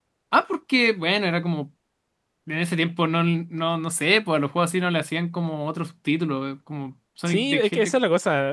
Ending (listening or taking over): taking over